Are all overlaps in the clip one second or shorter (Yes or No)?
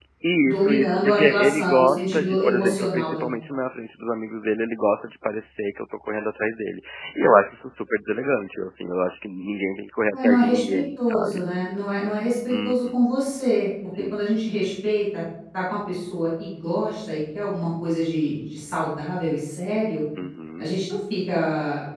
No